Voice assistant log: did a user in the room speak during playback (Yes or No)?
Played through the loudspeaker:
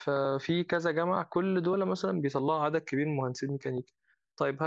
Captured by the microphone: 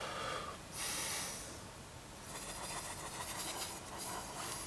No